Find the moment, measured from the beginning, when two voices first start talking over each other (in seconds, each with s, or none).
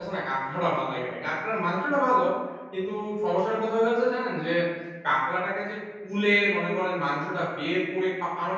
none